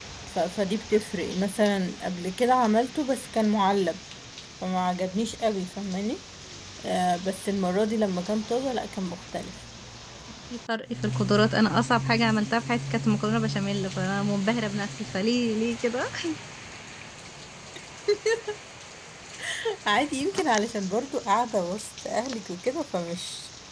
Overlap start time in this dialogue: none

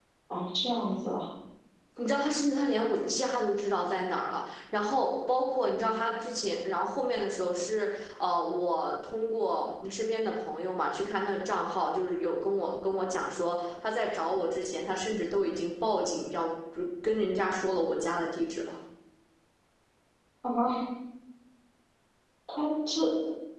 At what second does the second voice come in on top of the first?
none

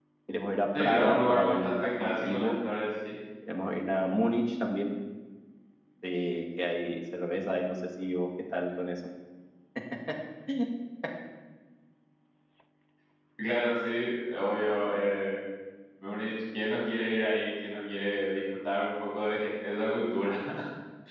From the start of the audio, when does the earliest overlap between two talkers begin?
0.8 s

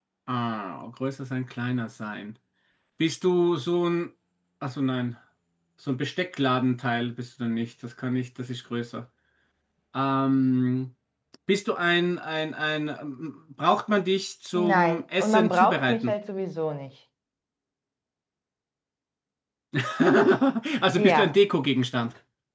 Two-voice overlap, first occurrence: 14.6 s

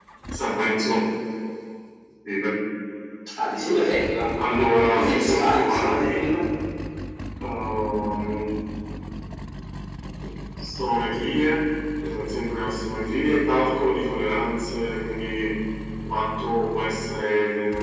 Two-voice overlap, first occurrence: 4.9 s

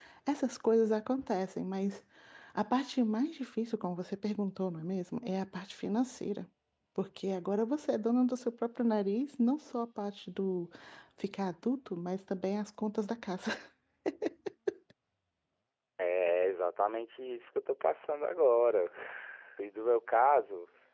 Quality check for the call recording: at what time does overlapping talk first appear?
none

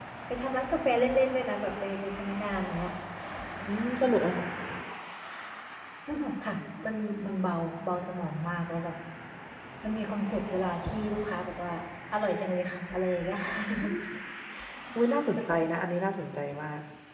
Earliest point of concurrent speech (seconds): none

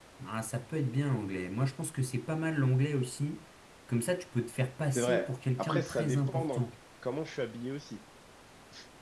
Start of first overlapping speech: 5.0 s

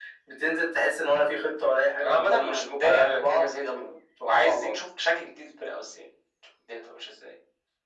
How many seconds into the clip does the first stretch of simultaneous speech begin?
2.0 s

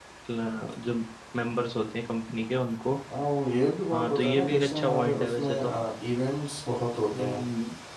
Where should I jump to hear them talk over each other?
3.9 s

